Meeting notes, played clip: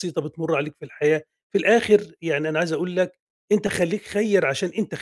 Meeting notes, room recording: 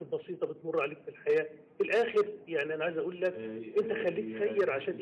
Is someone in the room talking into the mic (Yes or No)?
Yes